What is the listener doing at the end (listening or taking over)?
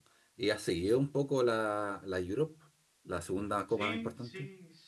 taking over